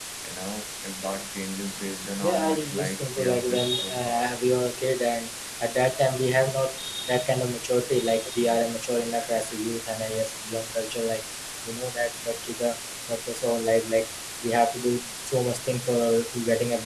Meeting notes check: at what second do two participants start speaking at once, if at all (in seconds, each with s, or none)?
2.2 s